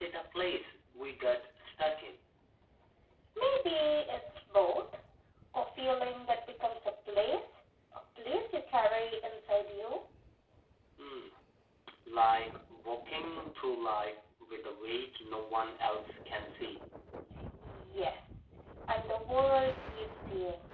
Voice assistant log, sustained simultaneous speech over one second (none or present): none